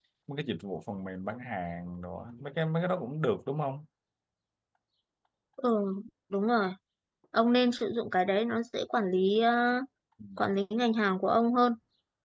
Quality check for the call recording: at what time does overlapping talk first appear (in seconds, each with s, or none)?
none